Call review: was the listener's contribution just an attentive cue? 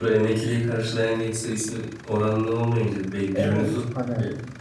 No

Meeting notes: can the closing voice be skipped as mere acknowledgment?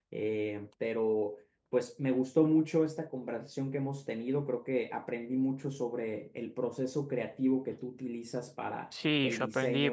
No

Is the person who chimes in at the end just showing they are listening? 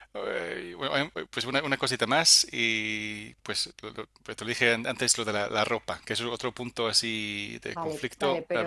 No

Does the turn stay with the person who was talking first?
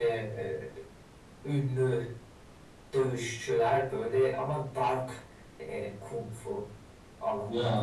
Yes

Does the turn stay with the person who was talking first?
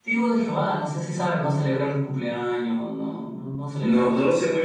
No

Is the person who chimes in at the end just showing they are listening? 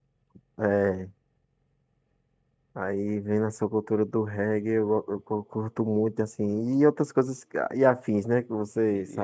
No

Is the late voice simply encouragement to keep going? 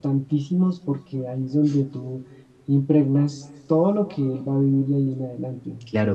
No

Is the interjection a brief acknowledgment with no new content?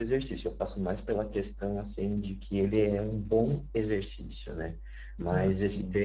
Yes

